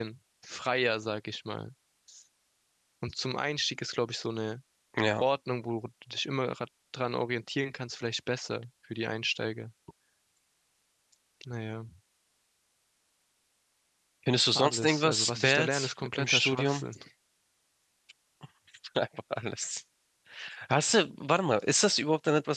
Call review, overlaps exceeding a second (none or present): present